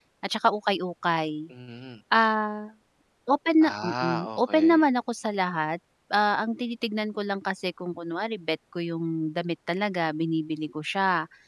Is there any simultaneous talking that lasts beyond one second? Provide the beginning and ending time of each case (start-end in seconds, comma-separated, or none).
3.6-4.8